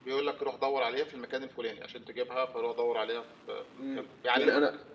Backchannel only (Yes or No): No